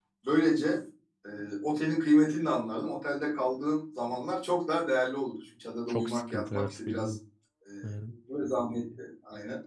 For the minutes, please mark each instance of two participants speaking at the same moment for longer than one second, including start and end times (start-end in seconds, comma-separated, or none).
5.9-7.2